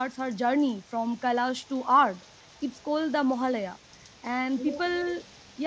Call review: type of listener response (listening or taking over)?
listening